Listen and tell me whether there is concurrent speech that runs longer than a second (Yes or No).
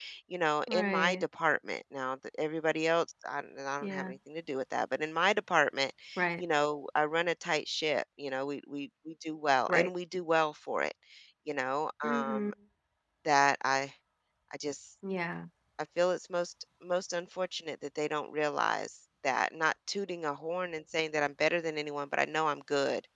No